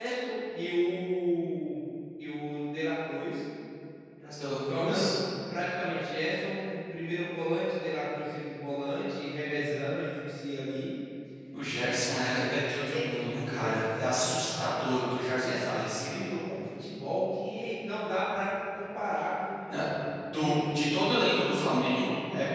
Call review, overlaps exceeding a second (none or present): present